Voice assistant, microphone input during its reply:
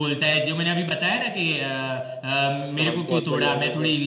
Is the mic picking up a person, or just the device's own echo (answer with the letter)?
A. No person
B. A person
B